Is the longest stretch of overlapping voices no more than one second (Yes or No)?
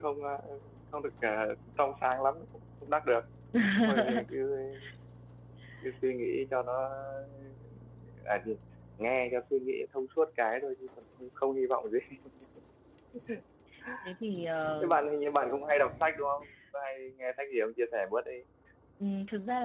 Yes